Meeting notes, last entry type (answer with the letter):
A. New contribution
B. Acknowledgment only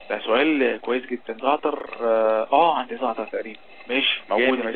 A